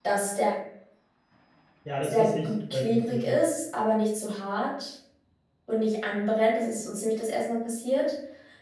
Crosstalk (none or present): present